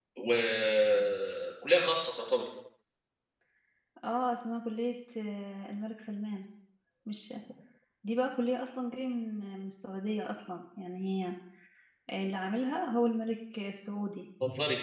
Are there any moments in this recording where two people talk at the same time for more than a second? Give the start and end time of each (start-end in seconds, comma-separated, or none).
none